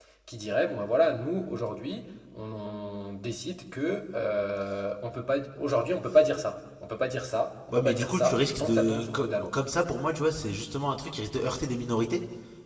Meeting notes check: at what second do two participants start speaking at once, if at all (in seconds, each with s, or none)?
7.7 s